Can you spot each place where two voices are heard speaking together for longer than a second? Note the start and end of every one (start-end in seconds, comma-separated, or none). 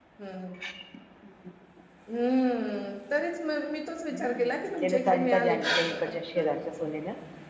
4.1-6.0